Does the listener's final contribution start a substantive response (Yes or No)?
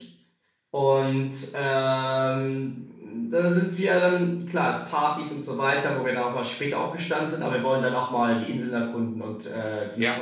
Yes